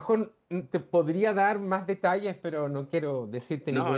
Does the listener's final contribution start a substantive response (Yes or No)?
Yes